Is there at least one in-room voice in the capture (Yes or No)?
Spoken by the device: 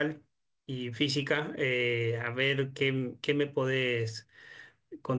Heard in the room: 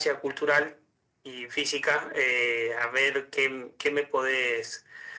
No